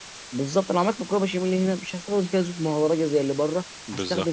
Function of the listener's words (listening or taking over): listening